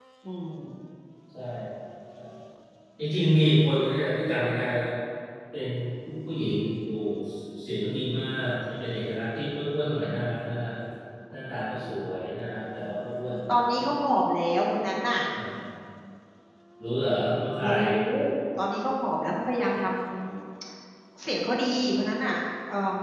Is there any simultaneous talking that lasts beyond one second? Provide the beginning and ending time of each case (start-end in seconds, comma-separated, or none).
none